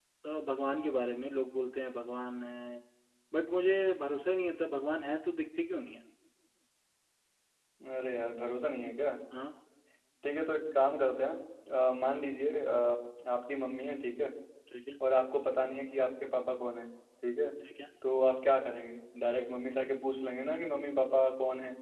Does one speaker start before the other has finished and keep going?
No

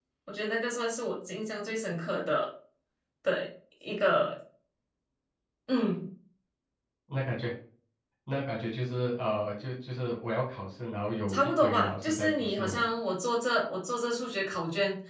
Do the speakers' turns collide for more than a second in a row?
Yes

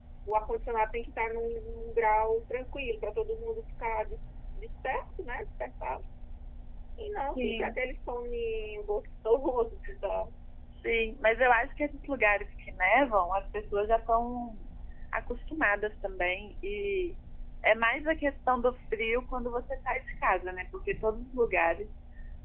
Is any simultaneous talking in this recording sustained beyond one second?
No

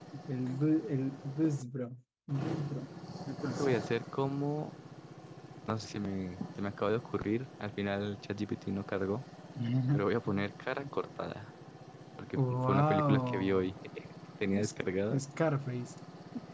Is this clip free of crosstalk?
No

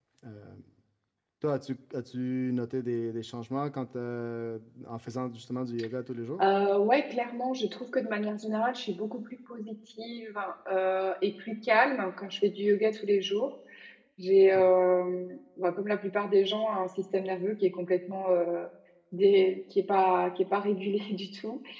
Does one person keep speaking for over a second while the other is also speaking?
No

